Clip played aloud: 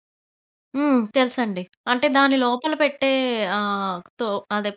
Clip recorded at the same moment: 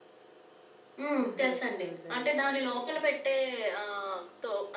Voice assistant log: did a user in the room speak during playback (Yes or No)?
Yes